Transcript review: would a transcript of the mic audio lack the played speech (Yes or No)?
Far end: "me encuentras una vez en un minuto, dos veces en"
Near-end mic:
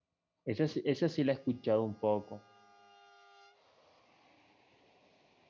Yes